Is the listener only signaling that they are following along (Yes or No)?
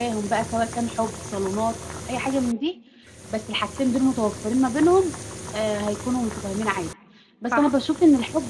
Yes